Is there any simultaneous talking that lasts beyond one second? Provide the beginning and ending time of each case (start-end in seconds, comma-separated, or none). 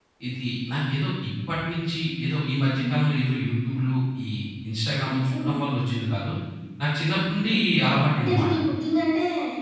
none